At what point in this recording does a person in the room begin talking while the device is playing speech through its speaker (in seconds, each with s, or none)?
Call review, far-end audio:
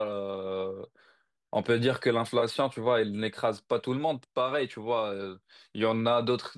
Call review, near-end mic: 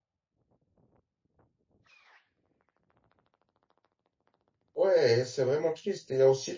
4.7 s